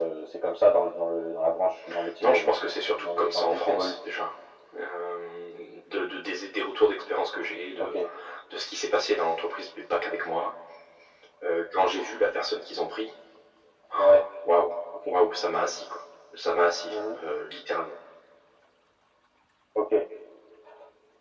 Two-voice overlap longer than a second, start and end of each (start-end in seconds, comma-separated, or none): 2.2-3.9